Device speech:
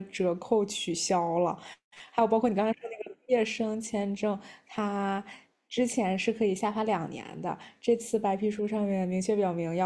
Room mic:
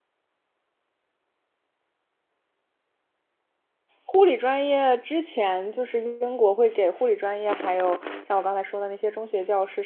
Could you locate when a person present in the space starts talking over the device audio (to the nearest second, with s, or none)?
4 s